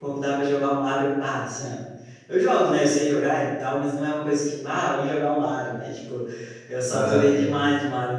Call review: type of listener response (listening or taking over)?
listening